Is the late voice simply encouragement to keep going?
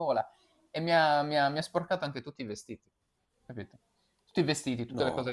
Yes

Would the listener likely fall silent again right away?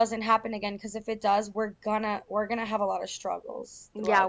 No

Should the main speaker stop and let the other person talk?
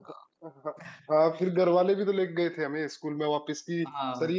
No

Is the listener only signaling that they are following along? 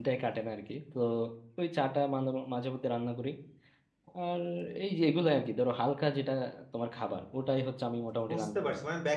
No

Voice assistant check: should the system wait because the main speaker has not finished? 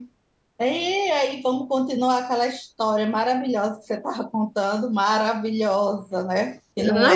No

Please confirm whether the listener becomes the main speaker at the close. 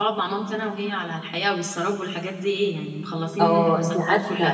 Yes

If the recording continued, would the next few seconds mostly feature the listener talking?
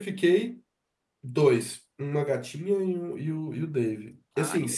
No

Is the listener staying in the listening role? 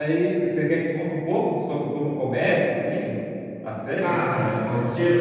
No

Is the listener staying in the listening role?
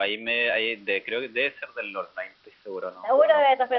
No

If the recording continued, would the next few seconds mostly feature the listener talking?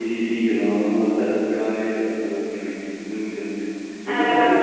No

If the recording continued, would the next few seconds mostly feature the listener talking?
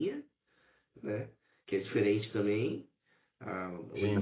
No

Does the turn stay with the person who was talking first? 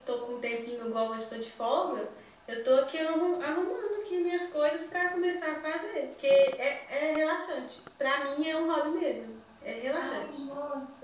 No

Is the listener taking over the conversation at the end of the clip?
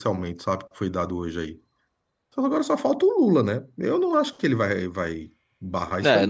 Yes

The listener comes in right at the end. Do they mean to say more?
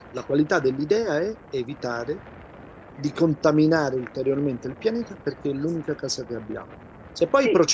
No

